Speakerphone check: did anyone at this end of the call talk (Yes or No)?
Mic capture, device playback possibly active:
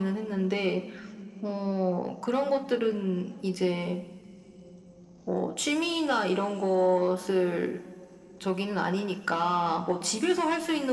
No